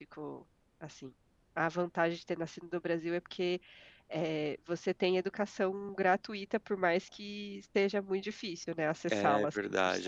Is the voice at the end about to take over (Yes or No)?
Yes